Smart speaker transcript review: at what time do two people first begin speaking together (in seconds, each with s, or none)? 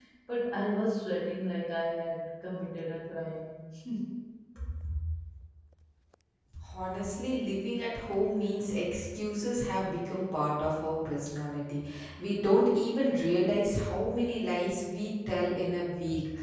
none